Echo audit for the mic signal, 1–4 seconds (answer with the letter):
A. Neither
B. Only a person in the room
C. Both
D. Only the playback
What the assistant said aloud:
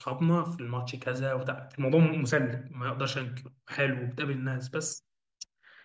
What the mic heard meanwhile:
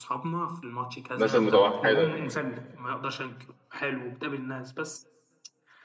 C